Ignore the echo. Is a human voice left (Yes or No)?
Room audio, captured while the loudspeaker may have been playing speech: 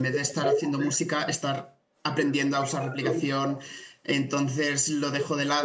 Yes